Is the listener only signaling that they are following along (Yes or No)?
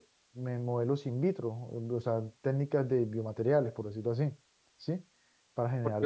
No